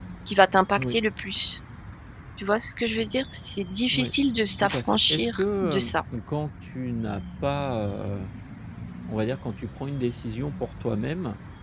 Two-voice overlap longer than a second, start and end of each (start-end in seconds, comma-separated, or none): 4.6-5.9